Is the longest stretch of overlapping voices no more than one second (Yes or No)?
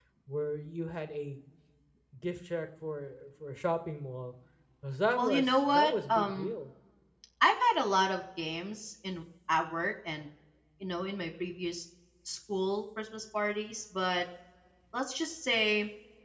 No